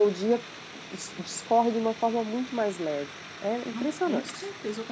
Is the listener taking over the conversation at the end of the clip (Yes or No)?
Yes